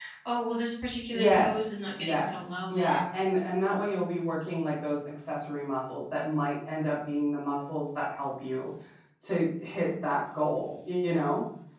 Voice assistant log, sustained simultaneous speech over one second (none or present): present